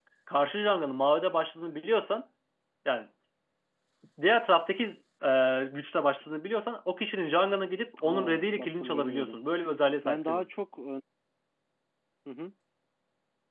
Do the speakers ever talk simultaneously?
Yes, from 8.0 s

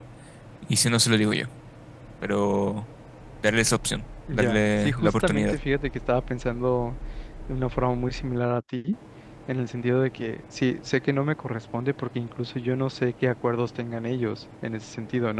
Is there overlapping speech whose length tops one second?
Yes, from 4.3 s

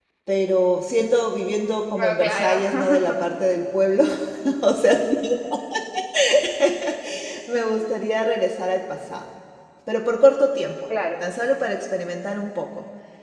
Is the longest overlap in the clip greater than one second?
Yes, from 1.9 s

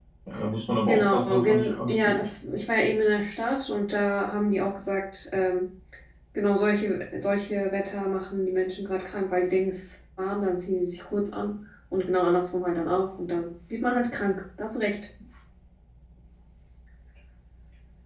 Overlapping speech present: Yes, from 0.9 s

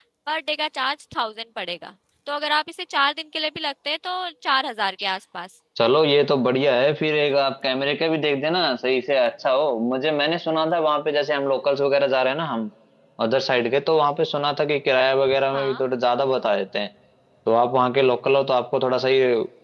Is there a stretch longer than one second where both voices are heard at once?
No

